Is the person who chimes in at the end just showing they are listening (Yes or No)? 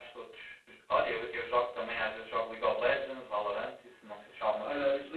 No